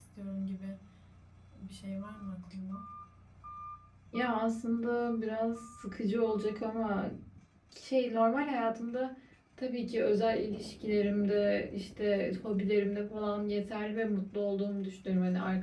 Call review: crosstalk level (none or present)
none